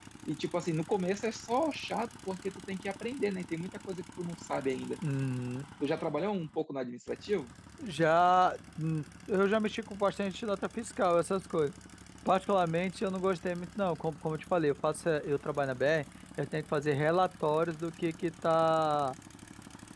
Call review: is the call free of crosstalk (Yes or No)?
Yes